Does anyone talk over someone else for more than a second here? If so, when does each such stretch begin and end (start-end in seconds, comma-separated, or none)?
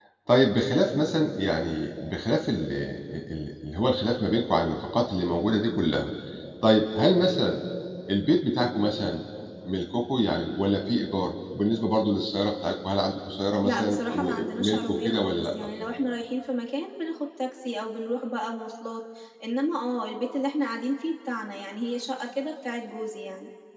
13.6-15.4